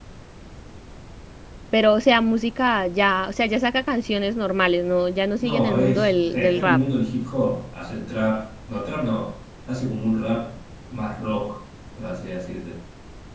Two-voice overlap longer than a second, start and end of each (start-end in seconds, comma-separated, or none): 5.4-6.8